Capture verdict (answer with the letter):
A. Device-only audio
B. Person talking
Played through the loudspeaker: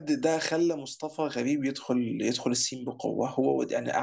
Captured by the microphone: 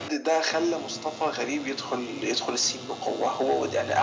A